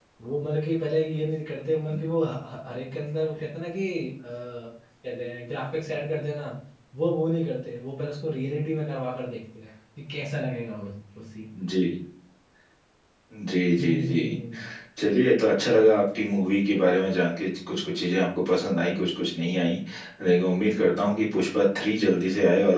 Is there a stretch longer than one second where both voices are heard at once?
No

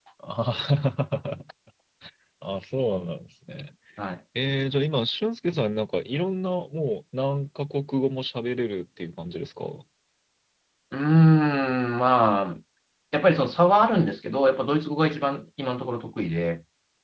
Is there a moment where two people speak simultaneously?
No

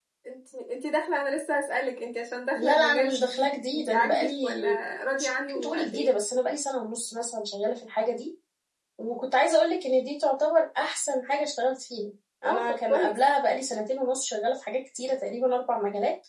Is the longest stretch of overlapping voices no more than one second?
No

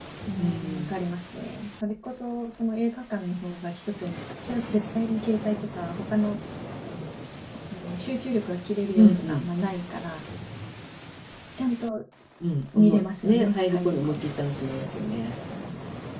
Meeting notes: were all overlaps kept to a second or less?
No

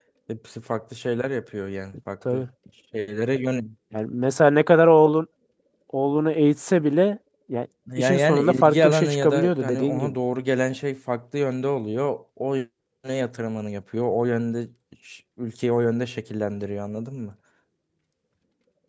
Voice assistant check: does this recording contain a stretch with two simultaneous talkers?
Yes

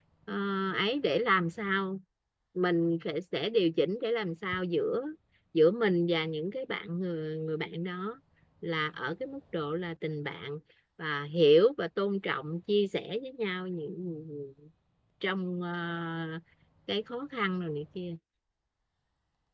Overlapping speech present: No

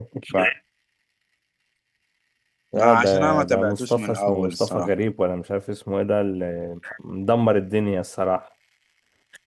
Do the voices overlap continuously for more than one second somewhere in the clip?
Yes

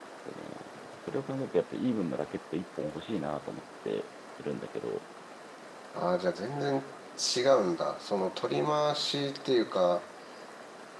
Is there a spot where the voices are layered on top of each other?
No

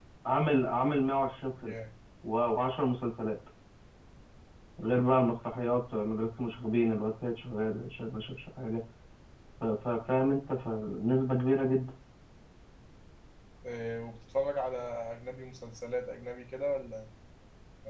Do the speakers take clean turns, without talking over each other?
Yes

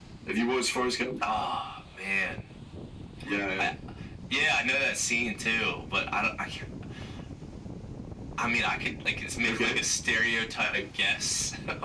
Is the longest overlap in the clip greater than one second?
No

